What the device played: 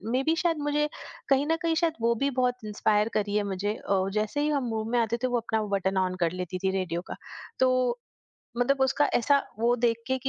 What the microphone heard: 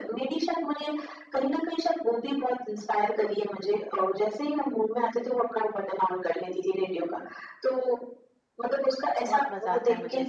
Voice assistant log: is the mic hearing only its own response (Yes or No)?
No